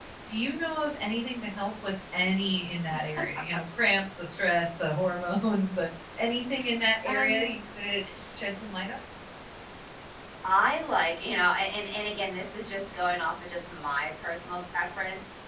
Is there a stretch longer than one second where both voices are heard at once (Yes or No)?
No